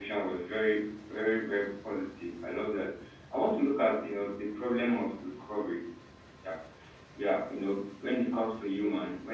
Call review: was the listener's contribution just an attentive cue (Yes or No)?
Yes